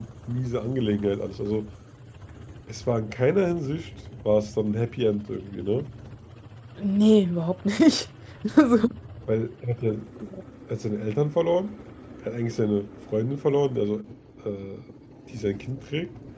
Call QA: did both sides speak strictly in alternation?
Yes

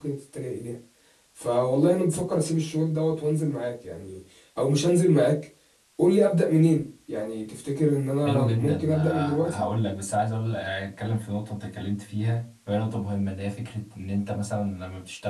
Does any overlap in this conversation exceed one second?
Yes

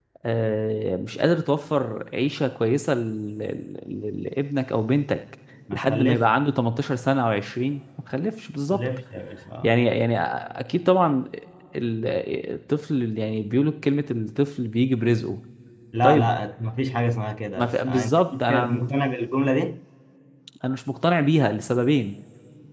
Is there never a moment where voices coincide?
No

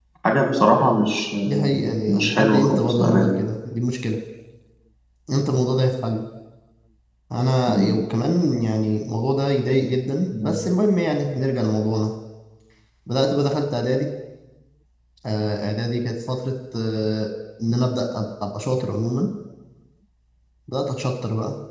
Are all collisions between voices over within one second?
No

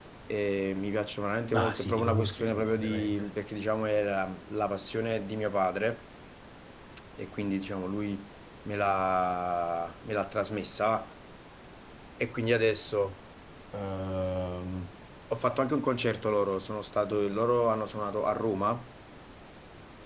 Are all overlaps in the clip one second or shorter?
No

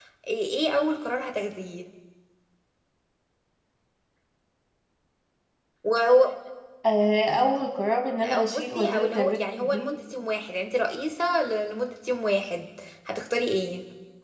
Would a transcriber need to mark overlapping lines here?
Yes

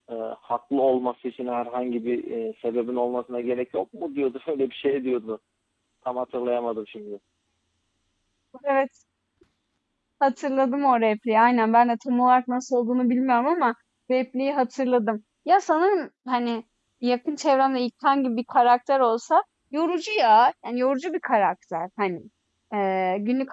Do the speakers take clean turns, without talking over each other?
Yes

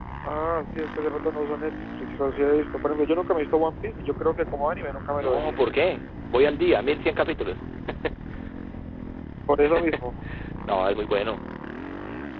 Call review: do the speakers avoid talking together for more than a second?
Yes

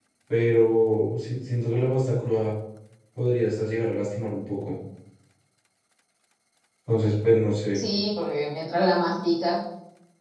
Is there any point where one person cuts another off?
No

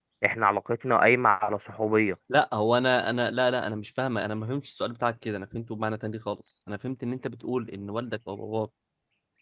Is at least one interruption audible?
No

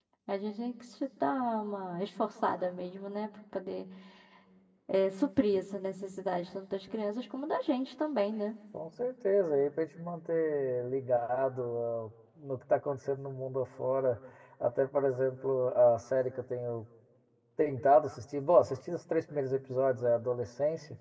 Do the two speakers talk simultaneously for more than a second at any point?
No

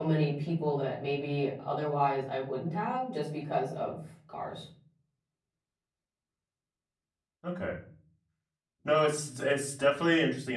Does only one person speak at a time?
Yes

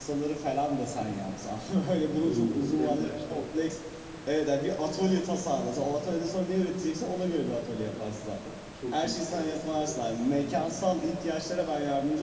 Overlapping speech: Yes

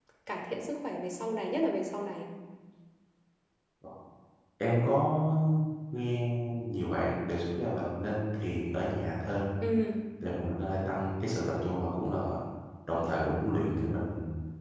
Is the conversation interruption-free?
Yes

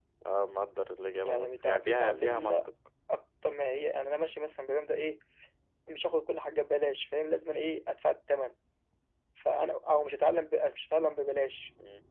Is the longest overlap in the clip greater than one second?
Yes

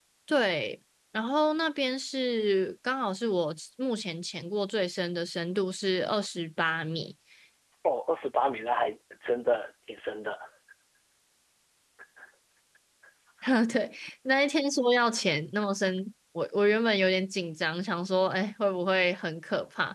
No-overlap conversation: Yes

